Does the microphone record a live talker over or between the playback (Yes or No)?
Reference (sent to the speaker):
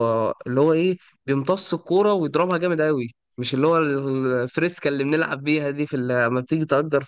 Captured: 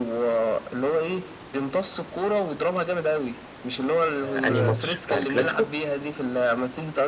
Yes